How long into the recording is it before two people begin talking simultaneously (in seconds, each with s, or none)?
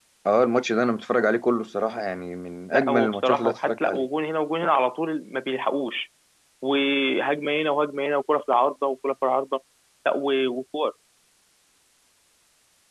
2.7 s